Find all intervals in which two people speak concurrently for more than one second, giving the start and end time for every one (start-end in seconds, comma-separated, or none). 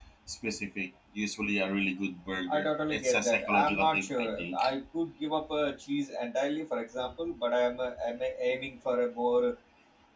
2.5-4.7